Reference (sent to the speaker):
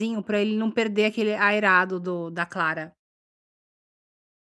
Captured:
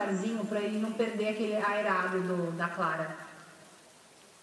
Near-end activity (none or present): none